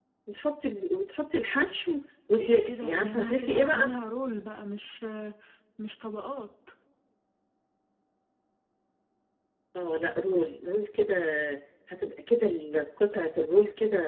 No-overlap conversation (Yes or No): No